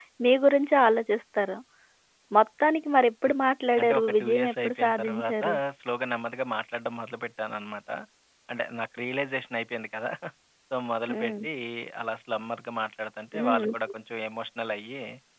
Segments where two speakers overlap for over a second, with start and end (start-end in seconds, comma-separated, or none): 3.8-5.4